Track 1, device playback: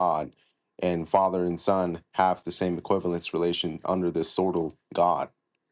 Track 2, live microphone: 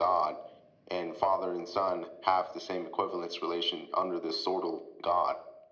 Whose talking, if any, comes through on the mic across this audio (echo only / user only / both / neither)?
echo only